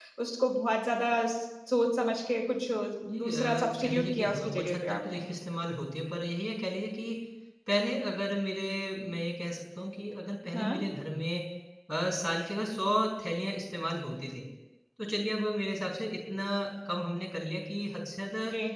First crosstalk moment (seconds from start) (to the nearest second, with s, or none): 3 s